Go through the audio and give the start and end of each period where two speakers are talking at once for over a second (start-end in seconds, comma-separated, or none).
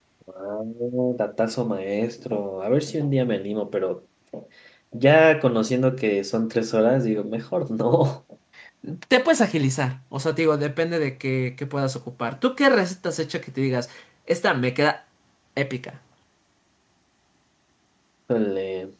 none